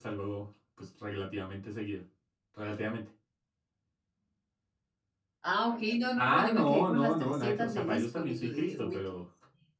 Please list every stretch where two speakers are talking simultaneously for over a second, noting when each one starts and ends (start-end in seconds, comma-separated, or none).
6.2-9.2